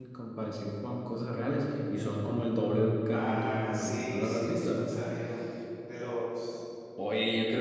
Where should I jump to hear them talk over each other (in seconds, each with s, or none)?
3.0 s